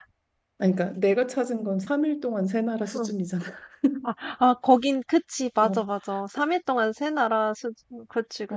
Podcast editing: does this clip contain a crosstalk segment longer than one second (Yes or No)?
No